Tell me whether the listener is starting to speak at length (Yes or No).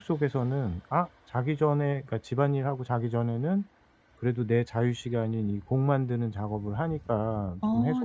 No